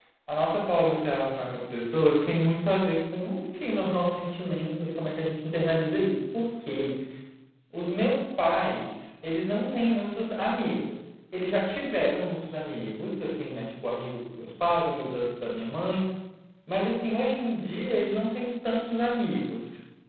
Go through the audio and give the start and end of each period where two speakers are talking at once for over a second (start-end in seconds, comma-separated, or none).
none